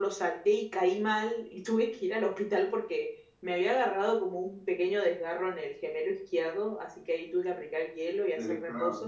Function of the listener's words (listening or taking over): listening